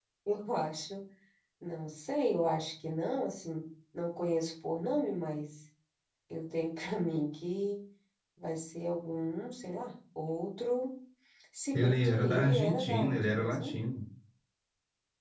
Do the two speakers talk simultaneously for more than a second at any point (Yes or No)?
Yes